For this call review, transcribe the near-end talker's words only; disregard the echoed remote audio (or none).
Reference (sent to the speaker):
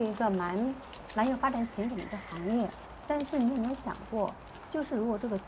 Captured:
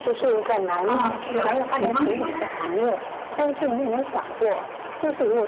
啊，对啊，比方说呢？